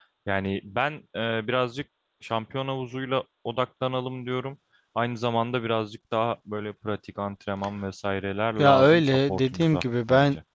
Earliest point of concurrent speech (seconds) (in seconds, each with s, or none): 8.6 s